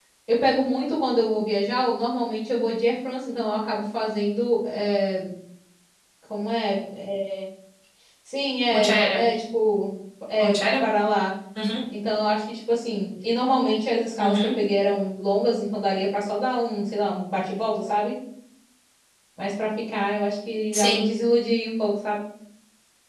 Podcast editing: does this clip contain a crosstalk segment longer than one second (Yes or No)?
No